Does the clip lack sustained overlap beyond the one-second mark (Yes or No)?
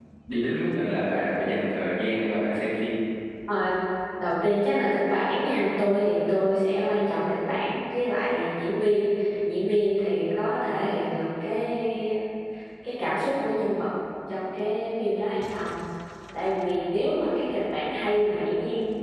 Yes